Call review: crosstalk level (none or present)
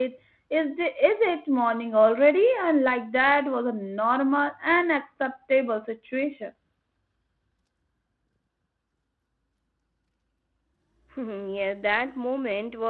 none